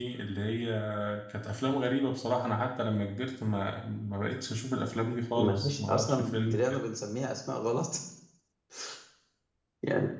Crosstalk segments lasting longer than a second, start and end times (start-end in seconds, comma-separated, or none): 5.4-6.8